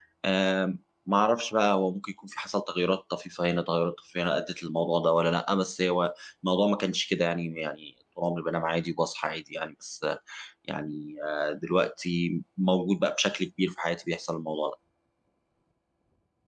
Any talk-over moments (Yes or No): No